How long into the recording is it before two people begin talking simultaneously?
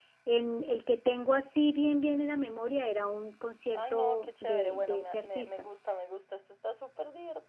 4 s

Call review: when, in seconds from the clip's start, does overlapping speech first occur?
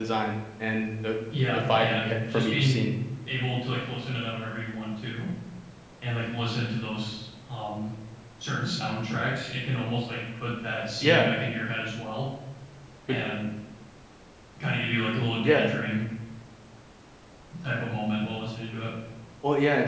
2 s

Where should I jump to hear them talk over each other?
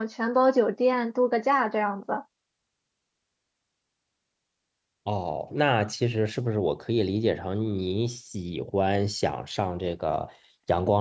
none

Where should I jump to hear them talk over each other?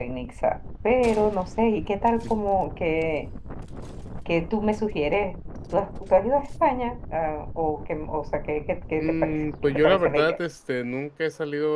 9 s

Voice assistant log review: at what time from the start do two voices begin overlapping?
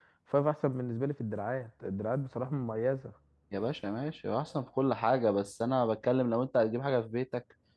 none

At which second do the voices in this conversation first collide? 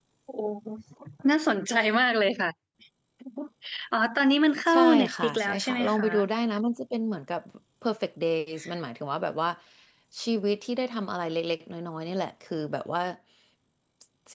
5 s

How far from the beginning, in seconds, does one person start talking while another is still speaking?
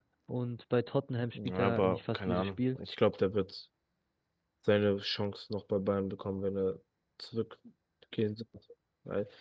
1 s

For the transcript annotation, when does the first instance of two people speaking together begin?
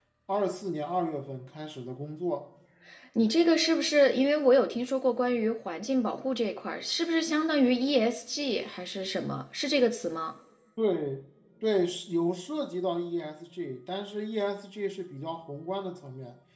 none

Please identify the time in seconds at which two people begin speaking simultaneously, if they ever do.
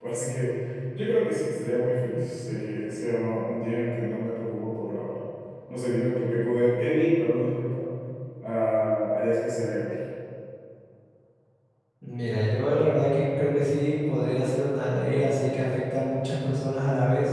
none

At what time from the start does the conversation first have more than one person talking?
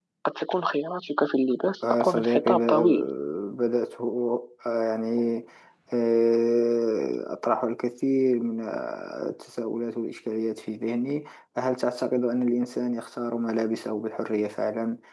2 s

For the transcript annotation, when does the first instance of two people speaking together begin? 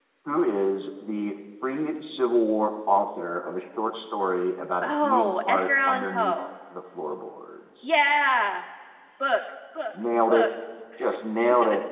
5 s

